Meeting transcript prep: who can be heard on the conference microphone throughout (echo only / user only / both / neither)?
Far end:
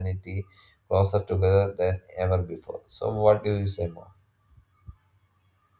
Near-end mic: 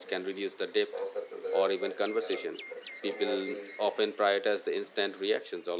both